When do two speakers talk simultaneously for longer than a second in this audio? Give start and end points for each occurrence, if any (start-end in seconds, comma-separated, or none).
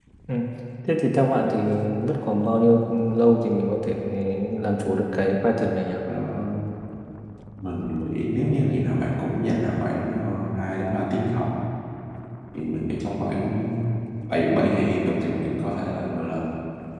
none